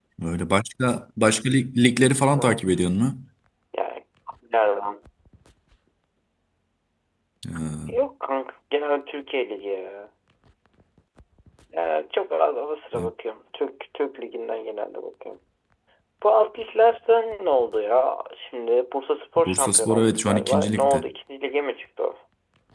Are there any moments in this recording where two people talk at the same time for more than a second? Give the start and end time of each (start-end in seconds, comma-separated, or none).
19.4-21.0